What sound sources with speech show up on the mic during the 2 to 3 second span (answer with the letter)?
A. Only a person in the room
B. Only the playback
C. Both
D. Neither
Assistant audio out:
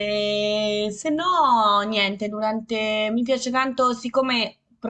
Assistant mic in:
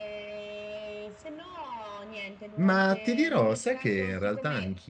C